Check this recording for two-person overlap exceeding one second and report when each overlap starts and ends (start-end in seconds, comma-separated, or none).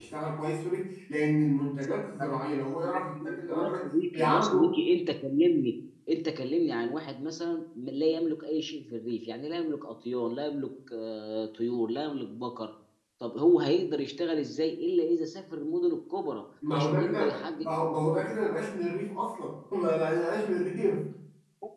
2.8-4.8, 16.7-18.4